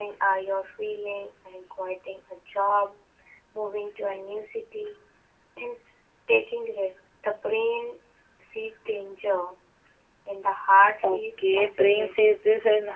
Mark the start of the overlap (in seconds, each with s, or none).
11.0 s